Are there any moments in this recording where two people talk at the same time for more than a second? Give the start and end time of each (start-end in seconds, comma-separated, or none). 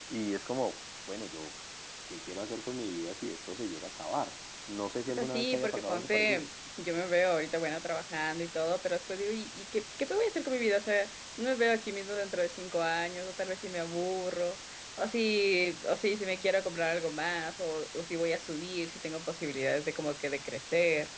5.1-6.4